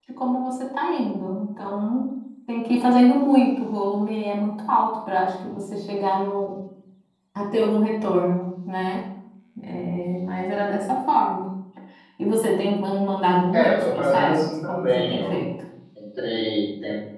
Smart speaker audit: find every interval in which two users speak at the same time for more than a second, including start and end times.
13.5-15.5

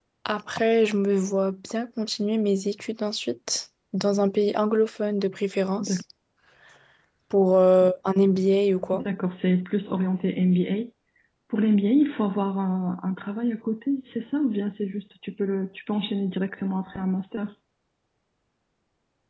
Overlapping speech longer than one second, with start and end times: none

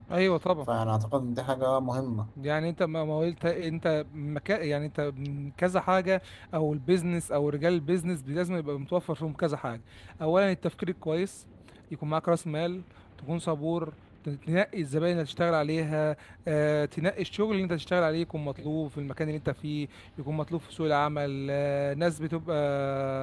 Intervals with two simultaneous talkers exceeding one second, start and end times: none

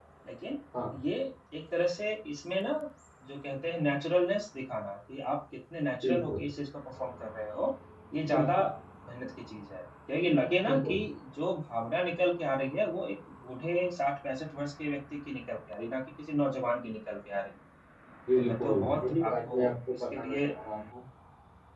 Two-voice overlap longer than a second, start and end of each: 18.4-20.4

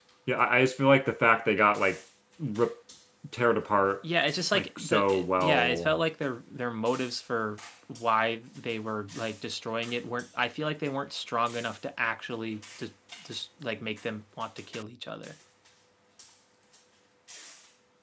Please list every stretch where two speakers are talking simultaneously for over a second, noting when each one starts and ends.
4.5-6.0

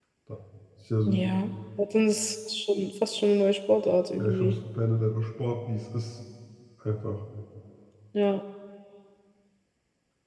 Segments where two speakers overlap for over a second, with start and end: none

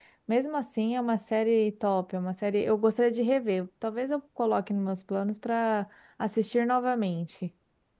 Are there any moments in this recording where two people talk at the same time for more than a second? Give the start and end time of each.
none

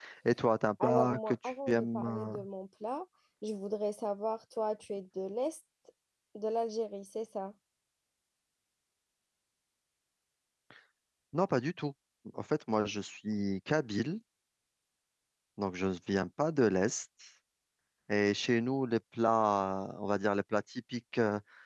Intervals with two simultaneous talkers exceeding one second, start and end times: 0.8-2.4

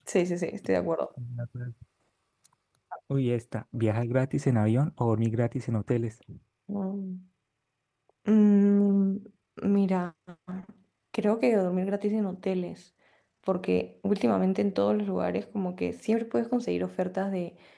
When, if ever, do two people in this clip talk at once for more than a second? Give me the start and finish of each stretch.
none

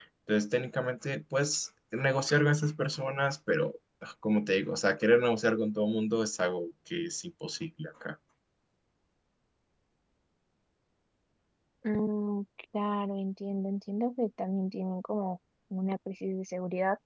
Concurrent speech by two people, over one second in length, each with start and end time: none

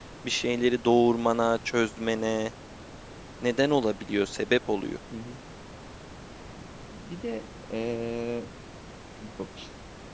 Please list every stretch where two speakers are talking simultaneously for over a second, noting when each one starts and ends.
none

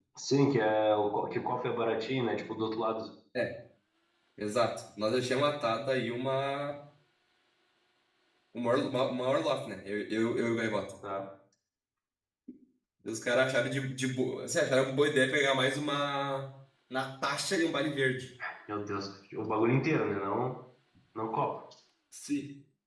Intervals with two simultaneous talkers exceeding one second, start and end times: none

